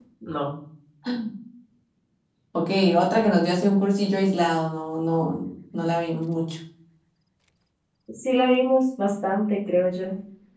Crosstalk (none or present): none